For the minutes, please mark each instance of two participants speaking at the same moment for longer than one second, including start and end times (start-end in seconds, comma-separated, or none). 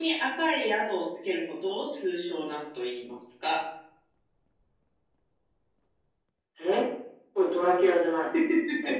none